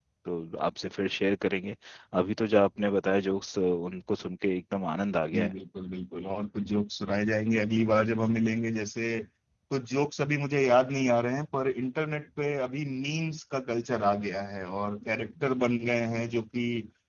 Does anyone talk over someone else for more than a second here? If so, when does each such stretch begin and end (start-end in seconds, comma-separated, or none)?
none